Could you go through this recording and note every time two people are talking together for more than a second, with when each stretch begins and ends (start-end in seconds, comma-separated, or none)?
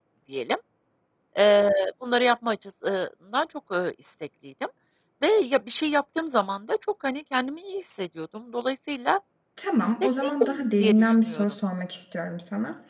9.8-11.5